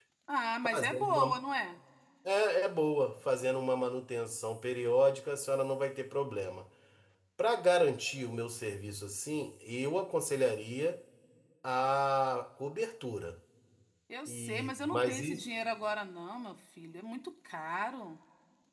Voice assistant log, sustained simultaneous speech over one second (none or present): present